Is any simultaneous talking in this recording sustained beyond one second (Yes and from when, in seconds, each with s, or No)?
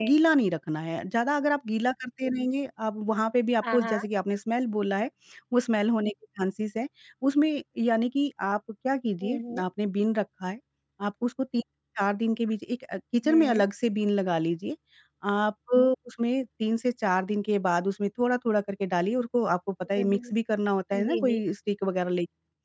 No